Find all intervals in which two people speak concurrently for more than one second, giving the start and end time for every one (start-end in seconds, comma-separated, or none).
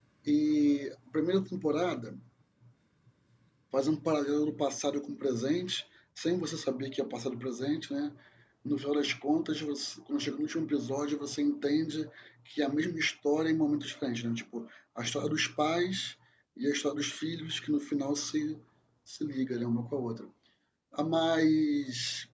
none